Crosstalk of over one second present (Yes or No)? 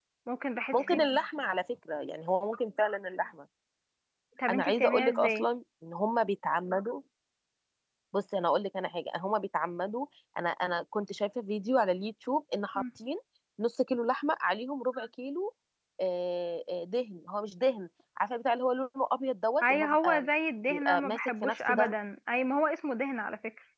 Yes